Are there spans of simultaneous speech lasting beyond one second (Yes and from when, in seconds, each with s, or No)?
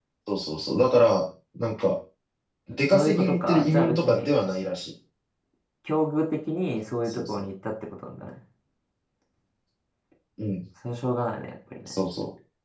Yes, from 2.9 s